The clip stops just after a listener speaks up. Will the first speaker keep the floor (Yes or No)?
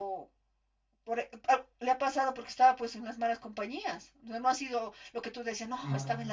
Yes